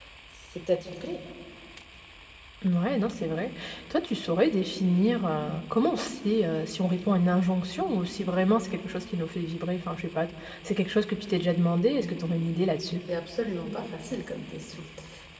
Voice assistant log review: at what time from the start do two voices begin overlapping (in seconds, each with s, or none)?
none